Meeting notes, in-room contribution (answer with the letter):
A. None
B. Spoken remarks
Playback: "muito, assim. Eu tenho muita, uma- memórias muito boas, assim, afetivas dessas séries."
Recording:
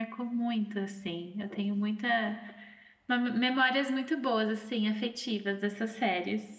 A